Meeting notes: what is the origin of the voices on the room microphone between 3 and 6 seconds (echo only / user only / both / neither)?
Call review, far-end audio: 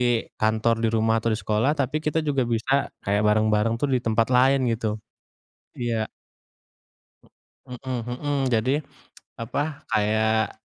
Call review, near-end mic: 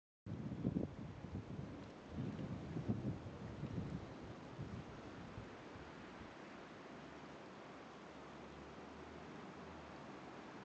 neither